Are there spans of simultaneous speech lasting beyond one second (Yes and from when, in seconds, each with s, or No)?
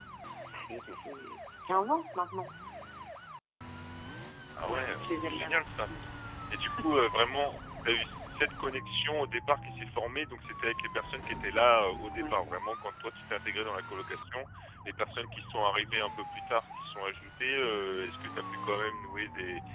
Yes, from 4.6 s